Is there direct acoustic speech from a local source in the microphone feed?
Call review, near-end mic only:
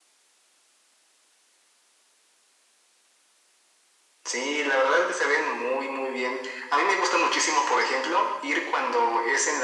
No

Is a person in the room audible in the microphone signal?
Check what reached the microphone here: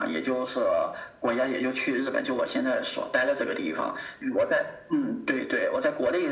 No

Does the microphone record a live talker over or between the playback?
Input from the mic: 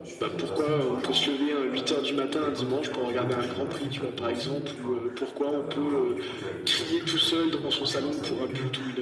Yes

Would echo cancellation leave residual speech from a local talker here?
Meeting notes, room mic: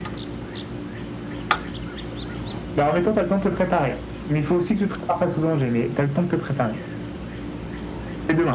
No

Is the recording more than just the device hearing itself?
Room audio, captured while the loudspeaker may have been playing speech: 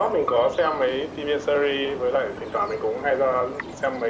No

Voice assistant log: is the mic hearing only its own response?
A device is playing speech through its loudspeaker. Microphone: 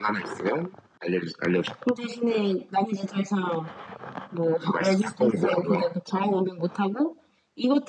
Yes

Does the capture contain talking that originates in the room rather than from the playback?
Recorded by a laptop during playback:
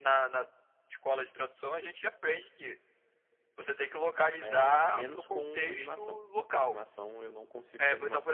Yes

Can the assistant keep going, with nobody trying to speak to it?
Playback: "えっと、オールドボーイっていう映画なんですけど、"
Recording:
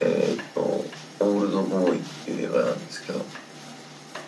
Yes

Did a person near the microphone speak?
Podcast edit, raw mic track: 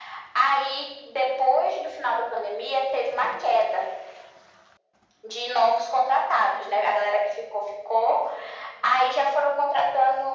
No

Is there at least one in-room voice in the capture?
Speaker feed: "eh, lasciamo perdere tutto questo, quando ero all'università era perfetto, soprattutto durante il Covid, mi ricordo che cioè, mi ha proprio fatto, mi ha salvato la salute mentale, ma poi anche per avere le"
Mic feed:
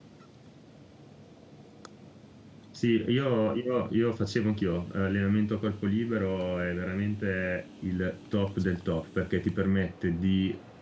Yes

